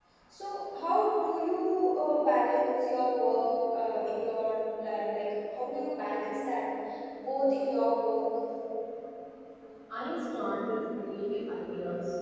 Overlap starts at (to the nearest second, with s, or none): none